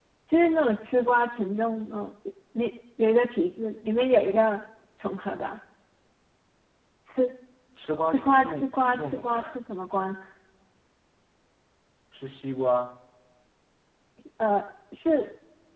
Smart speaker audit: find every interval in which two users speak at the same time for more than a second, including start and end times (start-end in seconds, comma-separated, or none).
8.0-9.6